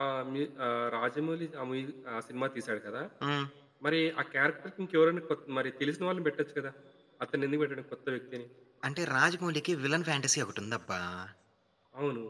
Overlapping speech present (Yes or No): No